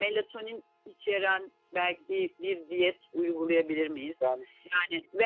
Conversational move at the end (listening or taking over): listening